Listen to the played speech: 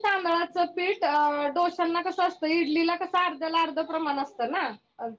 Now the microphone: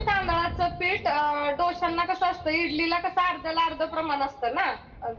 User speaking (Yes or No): No